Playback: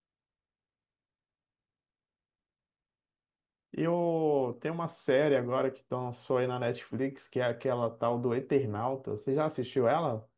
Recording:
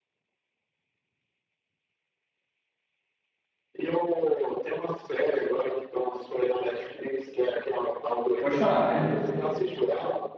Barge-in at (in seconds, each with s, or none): 8.4 s